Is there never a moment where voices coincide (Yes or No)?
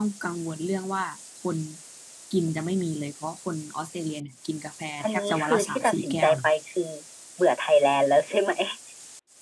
No